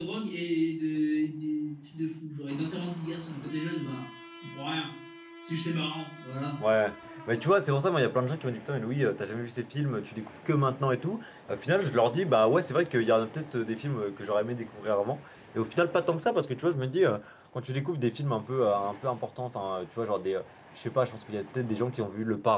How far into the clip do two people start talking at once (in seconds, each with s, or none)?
none